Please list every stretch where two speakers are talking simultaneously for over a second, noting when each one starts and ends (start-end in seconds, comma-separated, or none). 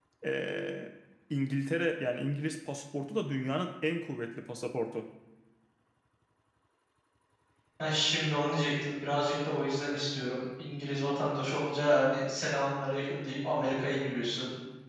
none